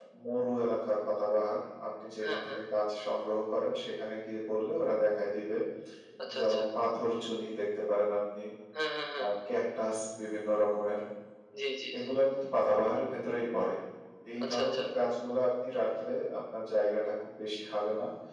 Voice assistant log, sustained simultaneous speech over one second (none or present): none